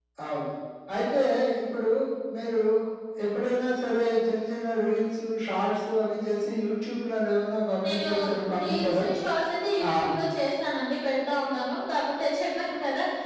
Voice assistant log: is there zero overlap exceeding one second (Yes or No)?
Yes